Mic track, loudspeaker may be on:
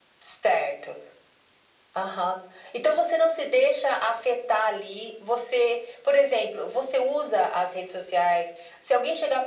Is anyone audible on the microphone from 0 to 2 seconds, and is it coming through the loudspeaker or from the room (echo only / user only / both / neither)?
echo only